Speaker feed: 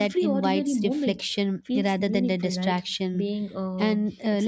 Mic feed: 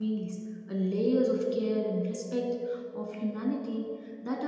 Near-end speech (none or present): present